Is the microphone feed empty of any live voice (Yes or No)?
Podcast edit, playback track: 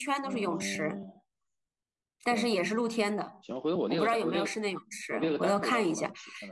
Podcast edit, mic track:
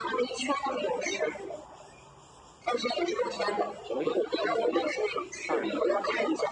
No